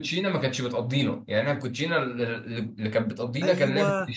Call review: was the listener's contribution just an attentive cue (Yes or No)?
No